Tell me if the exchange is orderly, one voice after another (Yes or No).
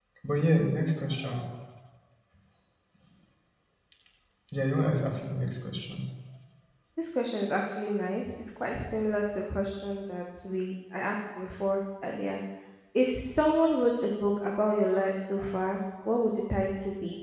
Yes